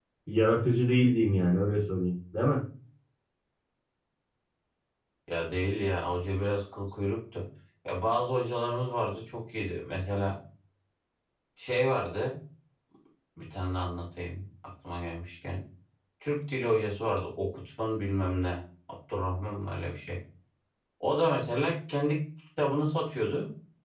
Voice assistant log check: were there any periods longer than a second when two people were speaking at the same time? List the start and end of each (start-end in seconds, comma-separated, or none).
none